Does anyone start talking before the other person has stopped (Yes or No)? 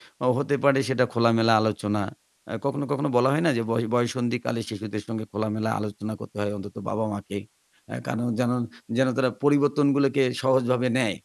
No